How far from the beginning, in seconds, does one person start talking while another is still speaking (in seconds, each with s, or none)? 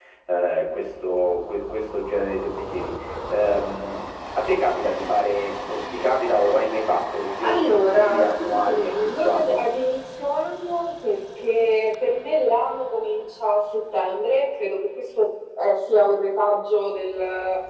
7.4 s